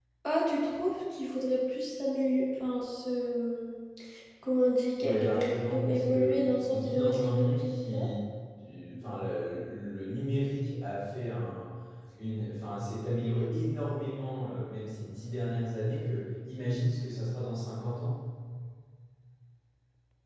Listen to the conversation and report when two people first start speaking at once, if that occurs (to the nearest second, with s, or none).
5 s